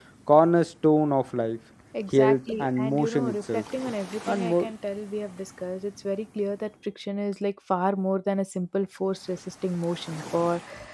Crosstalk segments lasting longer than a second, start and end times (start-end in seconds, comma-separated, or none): 2.1-3.6